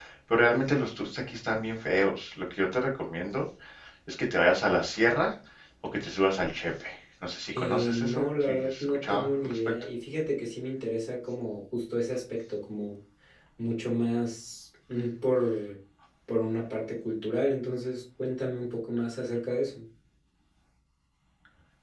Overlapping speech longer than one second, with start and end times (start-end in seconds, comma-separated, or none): 7.5-9.6